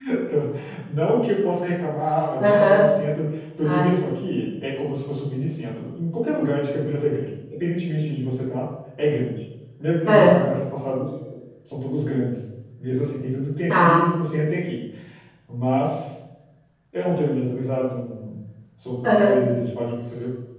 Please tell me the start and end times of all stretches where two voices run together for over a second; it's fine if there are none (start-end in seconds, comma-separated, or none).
none